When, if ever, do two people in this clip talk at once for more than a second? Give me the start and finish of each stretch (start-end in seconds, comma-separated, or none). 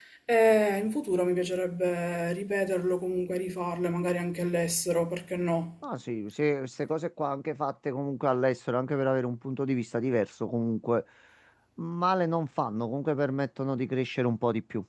none